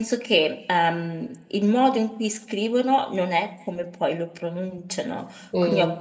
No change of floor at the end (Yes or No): Yes